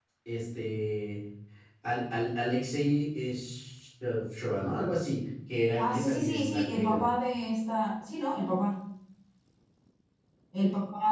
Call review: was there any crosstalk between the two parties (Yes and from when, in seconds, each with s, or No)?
Yes, from 5.8 s